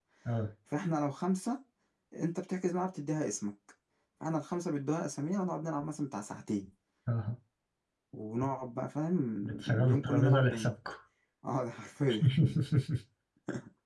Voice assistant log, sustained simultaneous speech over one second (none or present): present